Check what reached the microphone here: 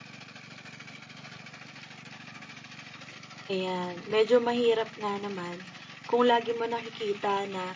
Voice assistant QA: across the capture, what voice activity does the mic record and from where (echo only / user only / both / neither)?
user only